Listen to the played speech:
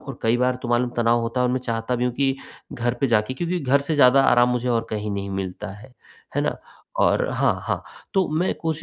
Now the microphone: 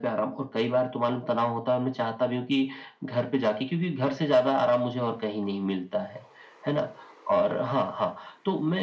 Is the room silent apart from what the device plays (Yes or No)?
Yes